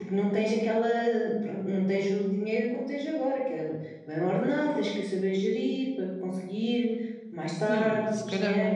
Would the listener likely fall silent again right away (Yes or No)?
No